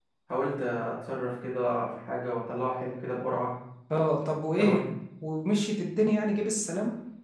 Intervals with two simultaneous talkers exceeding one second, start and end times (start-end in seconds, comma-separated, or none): none